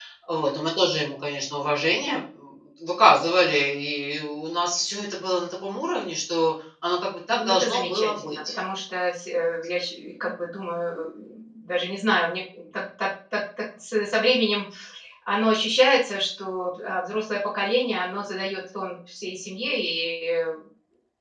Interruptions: present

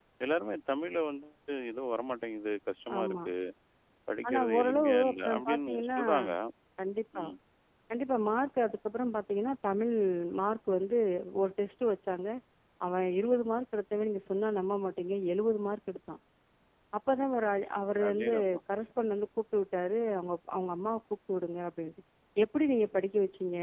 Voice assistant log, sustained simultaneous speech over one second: present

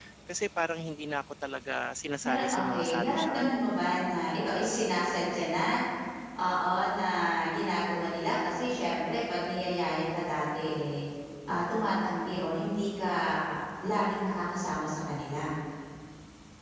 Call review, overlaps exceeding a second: present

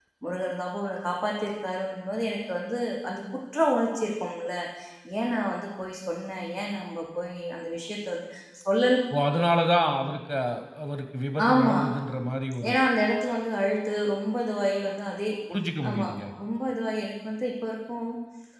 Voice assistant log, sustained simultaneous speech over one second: none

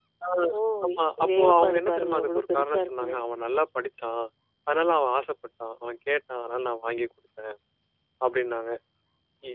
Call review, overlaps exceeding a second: present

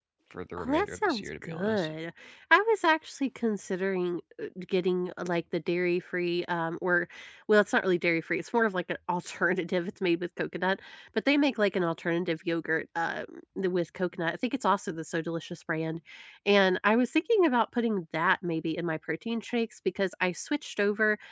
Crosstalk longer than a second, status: present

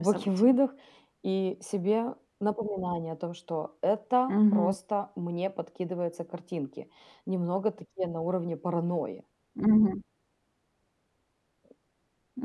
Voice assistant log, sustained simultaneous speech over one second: none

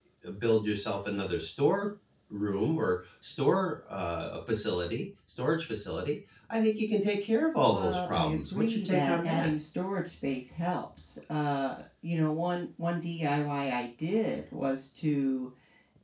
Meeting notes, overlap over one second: present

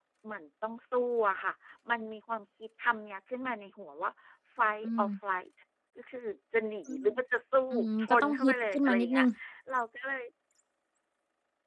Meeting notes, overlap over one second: present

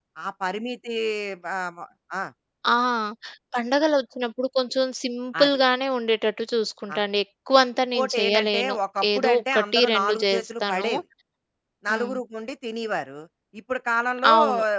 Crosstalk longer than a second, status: present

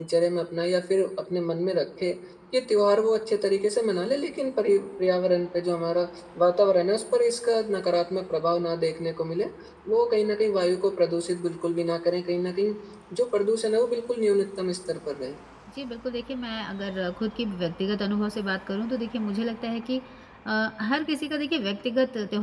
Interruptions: none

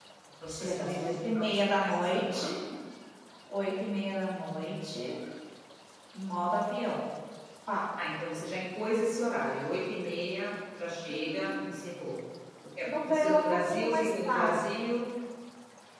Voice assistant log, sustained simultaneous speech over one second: present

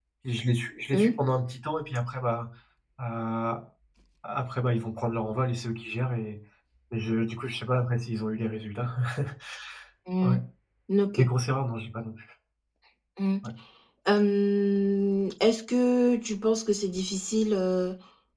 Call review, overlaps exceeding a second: none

